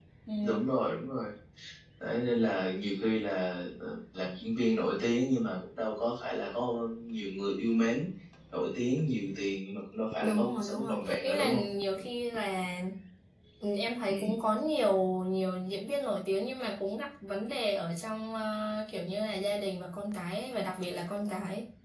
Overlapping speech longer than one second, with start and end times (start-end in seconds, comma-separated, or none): 10.2-11.6